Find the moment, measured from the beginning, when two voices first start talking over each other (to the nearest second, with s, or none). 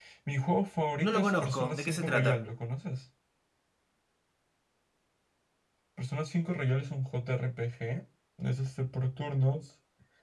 1 s